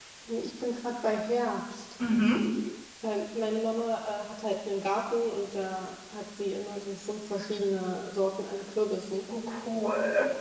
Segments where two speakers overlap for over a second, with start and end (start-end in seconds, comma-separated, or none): none